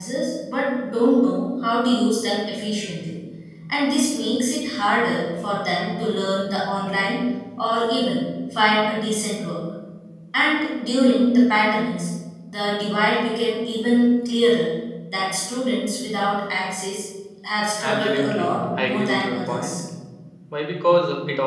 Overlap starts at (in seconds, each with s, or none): 17.8 s